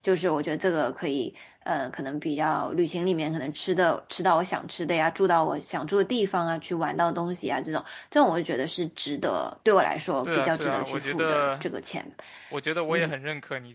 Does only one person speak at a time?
No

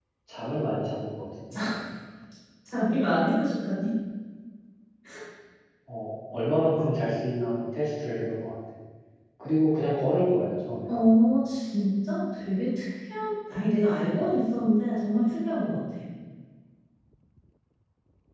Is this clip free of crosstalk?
Yes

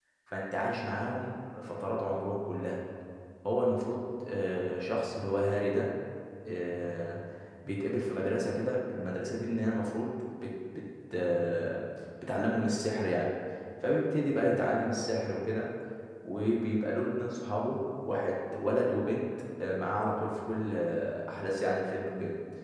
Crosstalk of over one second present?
No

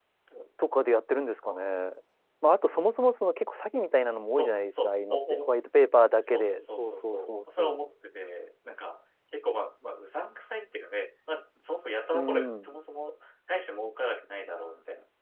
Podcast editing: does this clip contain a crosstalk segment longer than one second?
Yes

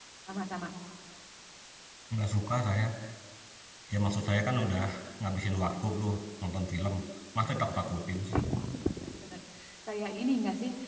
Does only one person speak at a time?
Yes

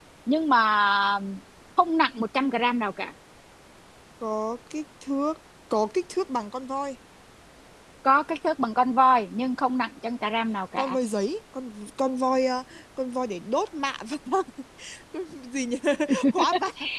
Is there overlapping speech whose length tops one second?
No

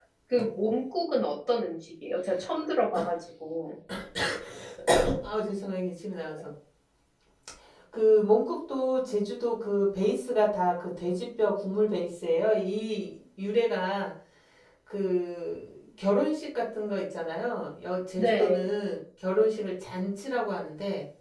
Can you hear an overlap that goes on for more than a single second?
No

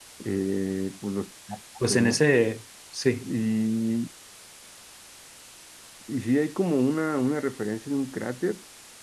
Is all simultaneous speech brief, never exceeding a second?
Yes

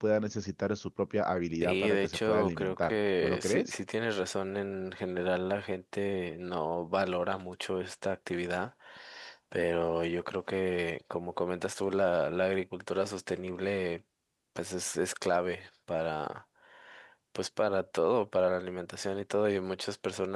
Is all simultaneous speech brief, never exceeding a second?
No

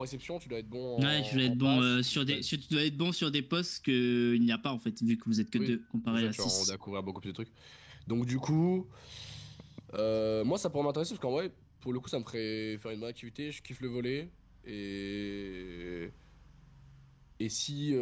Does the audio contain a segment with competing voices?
Yes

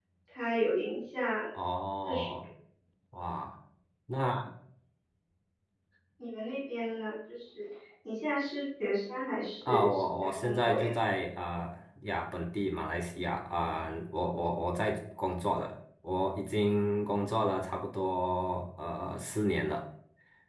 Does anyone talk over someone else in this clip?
Yes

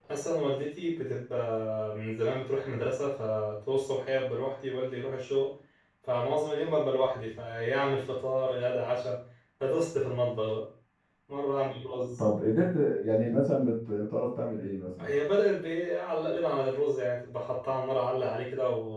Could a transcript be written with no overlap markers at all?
Yes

